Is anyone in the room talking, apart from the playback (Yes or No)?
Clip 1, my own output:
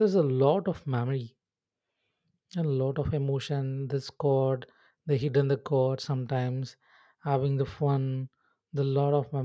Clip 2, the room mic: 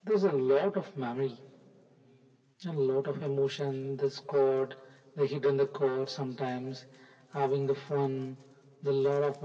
No